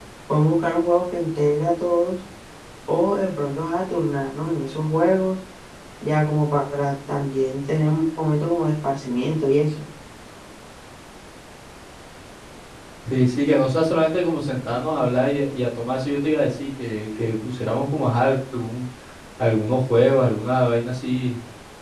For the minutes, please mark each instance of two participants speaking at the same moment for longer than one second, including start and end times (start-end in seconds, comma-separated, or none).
none